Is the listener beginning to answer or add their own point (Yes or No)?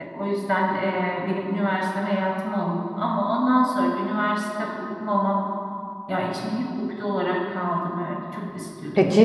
Yes